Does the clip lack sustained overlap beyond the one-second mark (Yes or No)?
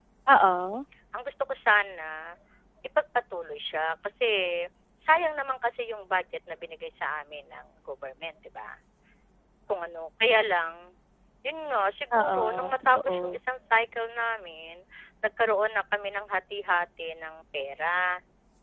No